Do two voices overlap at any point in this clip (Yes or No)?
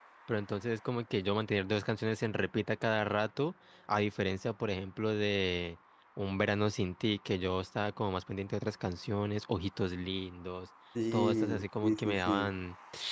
Yes